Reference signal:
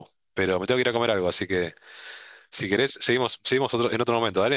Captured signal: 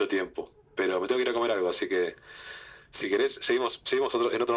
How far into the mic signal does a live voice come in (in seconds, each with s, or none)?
none